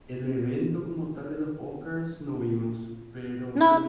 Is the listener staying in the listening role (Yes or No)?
Yes